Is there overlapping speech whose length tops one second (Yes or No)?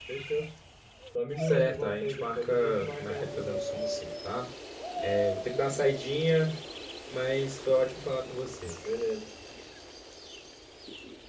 Yes